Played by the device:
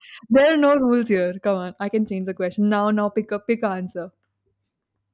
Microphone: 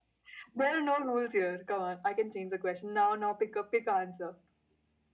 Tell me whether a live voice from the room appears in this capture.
No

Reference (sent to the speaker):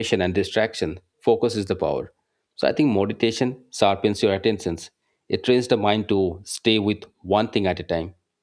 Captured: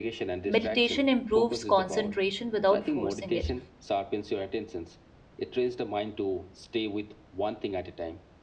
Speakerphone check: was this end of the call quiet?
No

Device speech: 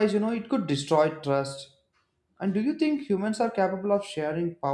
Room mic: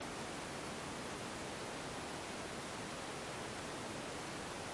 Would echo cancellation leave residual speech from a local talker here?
No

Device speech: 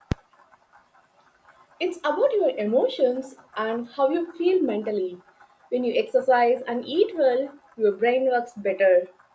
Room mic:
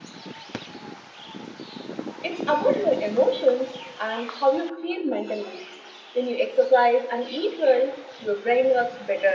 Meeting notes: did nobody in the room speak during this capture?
Yes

